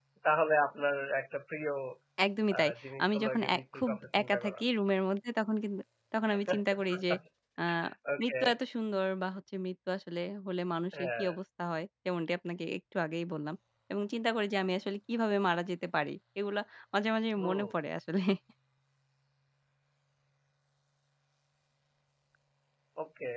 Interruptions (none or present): present